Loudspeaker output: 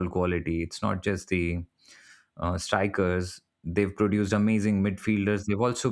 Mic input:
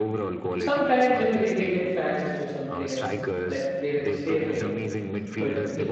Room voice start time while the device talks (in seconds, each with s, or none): 0.6 s